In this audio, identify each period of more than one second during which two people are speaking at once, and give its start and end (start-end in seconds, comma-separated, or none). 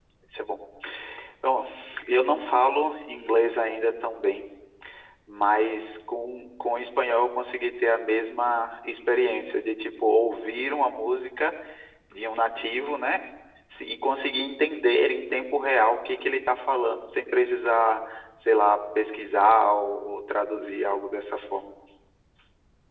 none